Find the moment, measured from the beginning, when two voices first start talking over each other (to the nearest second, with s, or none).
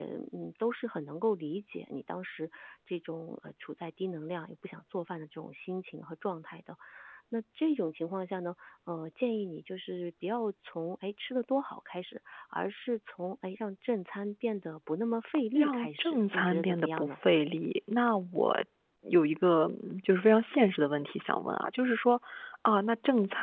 16 s